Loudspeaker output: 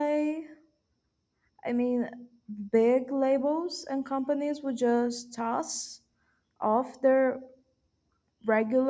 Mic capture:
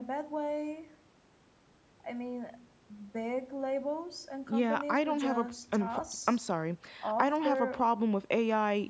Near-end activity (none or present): present